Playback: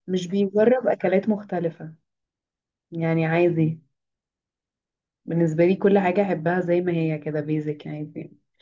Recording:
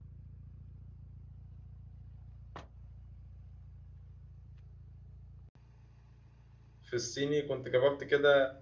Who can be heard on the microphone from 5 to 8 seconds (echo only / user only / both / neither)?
user only